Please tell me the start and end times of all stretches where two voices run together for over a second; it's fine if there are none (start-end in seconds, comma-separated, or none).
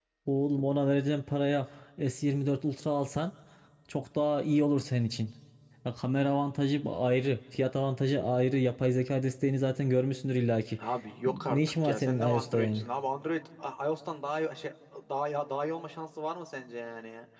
11.5-12.8